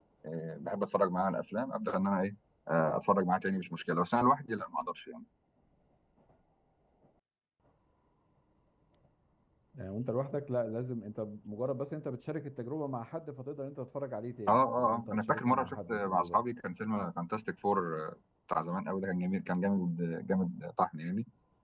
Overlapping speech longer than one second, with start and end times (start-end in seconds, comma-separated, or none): 14.5-16.4